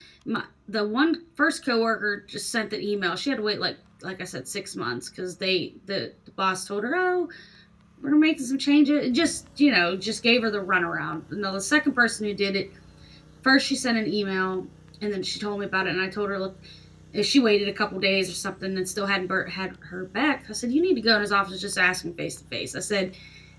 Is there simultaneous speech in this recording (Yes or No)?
No